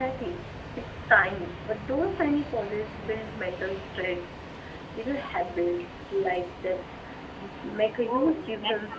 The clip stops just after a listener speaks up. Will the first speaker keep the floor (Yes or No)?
No